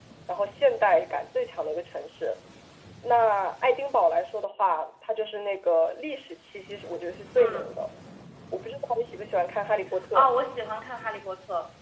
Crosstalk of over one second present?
No

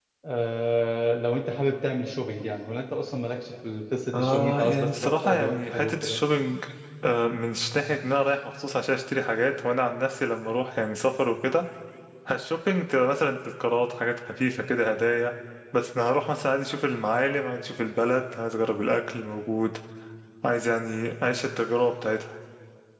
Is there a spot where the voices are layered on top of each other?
Yes, from 4.1 s

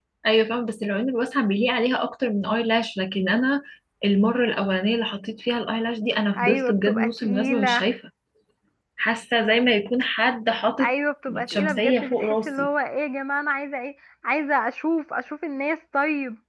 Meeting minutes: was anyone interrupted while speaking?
Yes, from 6.4 s

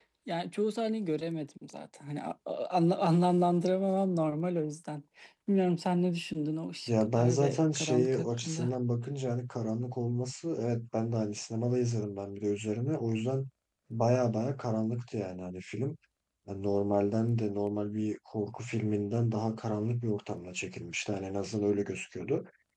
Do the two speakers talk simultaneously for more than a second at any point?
Yes, from 6.9 s

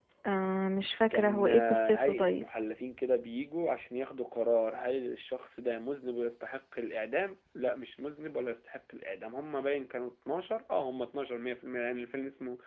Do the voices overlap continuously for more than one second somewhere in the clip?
Yes, from 1.1 s

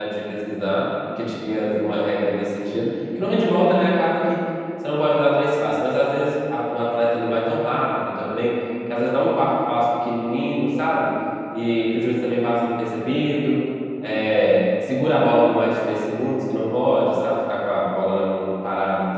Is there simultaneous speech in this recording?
No

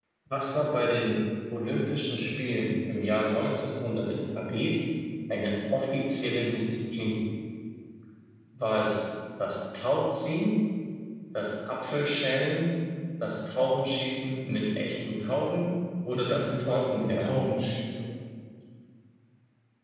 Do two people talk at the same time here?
Yes, from 16.1 s

